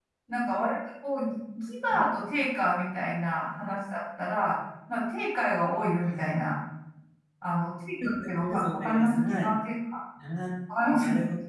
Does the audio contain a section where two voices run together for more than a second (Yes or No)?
Yes